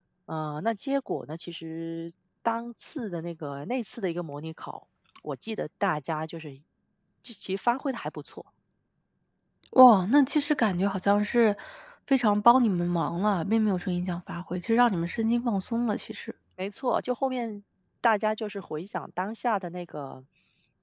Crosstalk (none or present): none